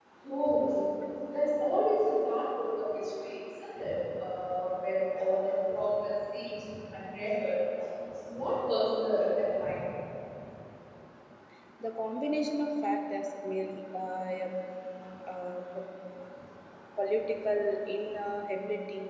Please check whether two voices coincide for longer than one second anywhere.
No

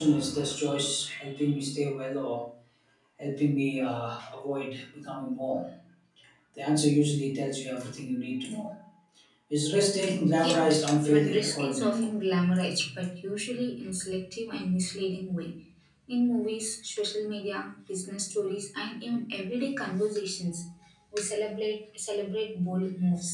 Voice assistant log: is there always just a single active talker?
No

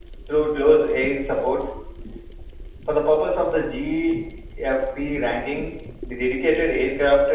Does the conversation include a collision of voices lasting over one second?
No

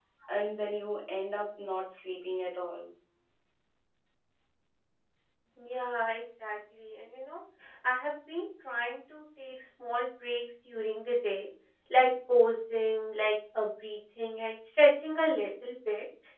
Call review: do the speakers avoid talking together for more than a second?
Yes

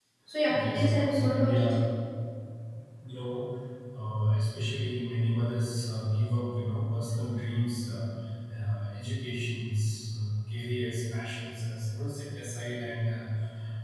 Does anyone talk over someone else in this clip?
Yes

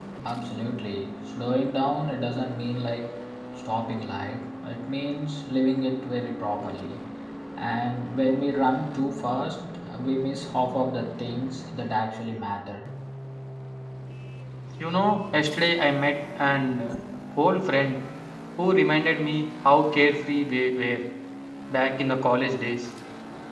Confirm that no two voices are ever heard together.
Yes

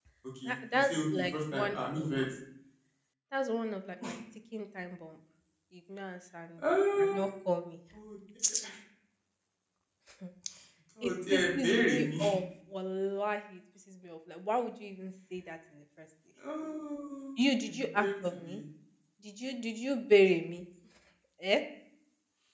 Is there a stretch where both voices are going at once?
Yes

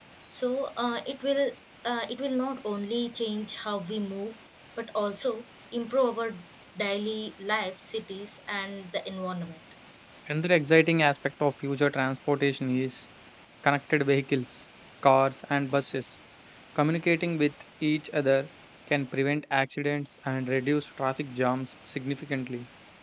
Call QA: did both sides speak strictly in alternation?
Yes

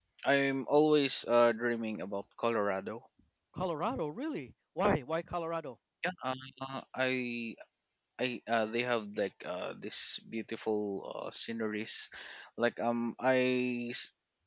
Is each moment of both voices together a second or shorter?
Yes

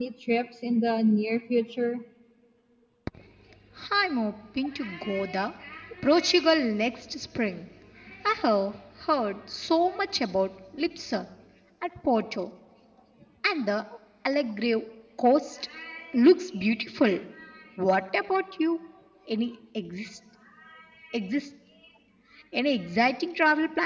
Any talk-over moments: No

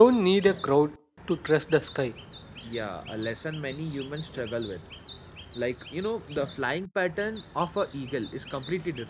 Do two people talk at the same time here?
No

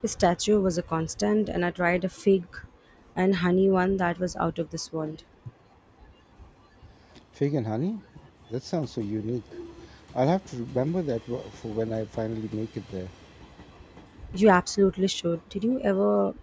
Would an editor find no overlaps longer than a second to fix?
Yes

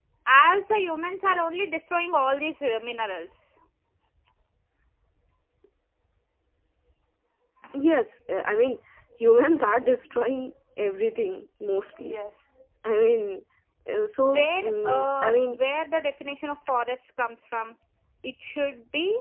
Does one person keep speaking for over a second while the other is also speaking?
Yes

